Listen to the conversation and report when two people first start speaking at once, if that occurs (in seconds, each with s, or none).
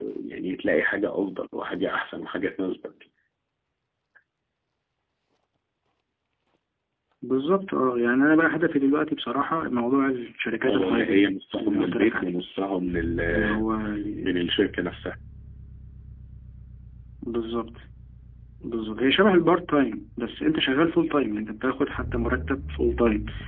10.7 s